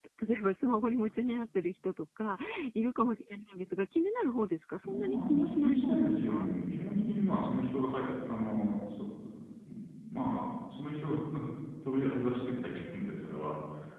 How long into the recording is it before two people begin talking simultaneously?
4.8 s

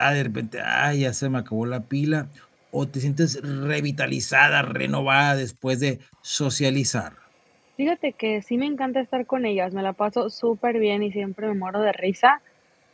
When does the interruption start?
none

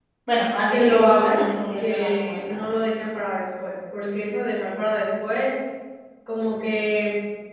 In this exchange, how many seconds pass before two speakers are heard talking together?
0.7 s

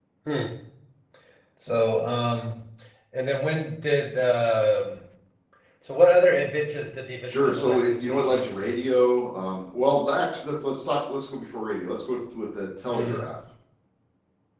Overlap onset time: 7.2 s

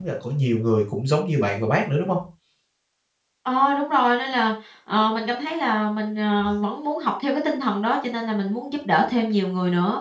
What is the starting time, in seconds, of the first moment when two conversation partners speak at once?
none

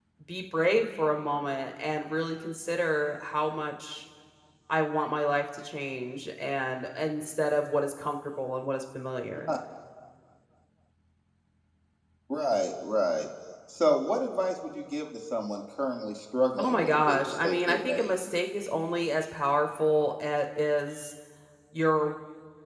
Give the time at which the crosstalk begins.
16.6 s

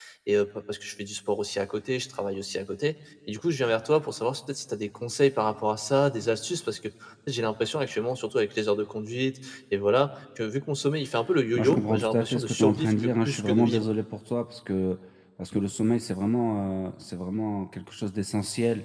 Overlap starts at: 11.6 s

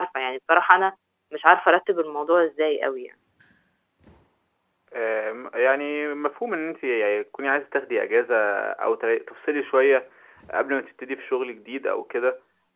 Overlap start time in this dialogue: none

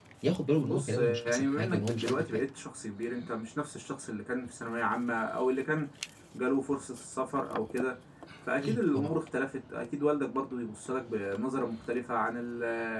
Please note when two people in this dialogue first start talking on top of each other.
0.6 s

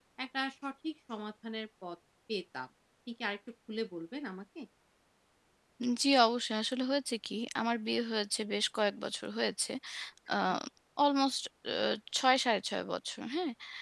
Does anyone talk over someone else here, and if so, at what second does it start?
none

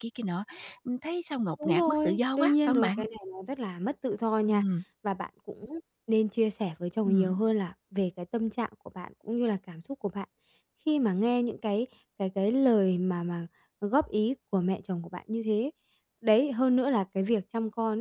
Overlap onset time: 1.6 s

